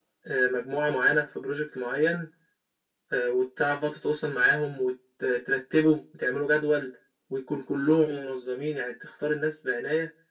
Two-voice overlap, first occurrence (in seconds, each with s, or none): none